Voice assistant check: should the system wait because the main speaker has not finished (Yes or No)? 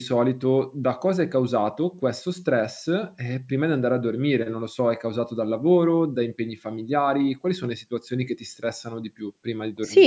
No